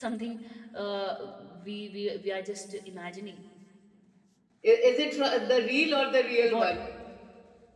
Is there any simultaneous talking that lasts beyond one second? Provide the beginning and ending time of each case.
none

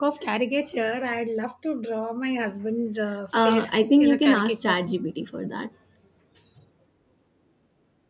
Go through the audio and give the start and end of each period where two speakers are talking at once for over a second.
3.5-4.8

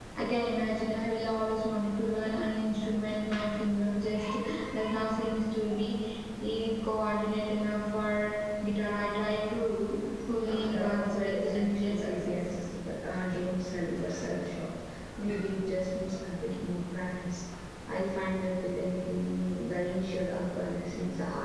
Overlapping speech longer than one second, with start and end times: 10.5-12.5

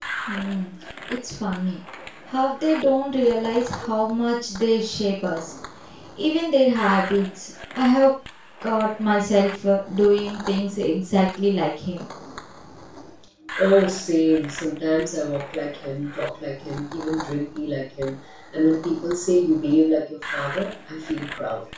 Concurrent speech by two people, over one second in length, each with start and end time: none

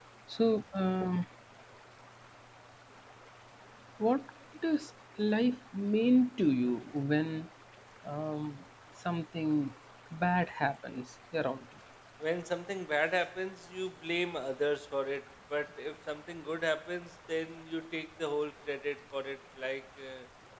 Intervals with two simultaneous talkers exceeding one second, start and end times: none

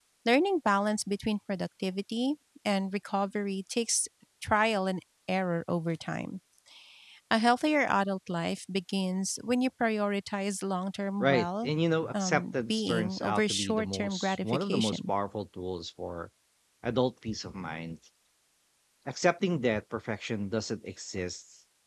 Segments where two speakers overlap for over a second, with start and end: 12.2-15.1

